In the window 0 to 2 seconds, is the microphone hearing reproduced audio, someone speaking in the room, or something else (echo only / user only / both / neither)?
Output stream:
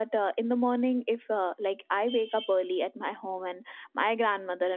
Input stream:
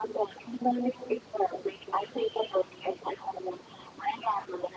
echo only